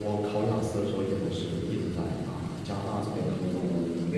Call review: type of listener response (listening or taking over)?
taking over